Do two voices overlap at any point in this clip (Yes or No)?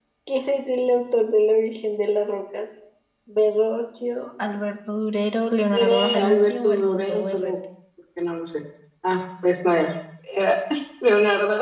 Yes